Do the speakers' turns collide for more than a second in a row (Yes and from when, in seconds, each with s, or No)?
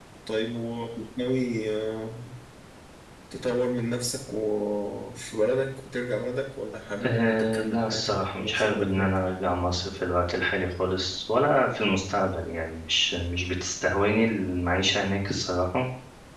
Yes, from 7.0 s